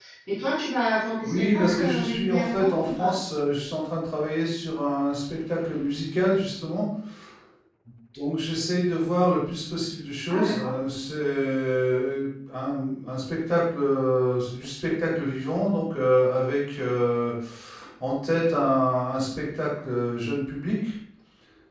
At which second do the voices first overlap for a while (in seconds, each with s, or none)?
1.2 s